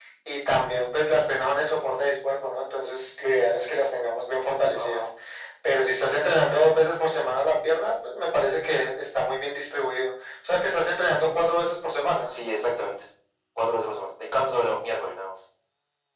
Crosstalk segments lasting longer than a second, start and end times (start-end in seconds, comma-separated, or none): none